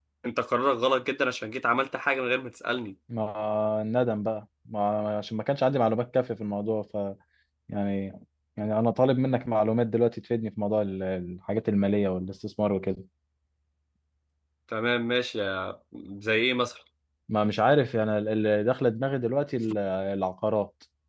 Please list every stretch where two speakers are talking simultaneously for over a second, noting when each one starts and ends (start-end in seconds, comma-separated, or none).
none